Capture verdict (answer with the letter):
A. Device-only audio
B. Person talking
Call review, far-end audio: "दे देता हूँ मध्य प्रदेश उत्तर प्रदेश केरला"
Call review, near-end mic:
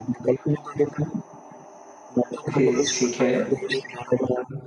B